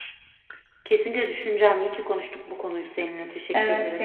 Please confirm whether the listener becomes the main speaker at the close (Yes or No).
Yes